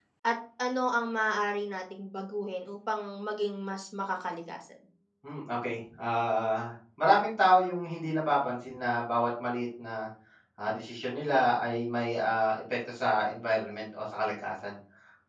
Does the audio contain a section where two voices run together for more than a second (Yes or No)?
No